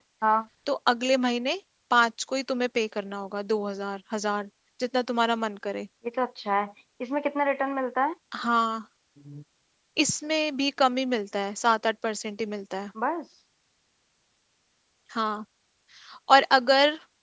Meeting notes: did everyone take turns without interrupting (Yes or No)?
Yes